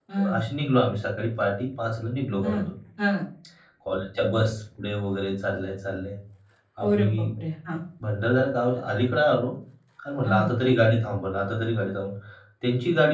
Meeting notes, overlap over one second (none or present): none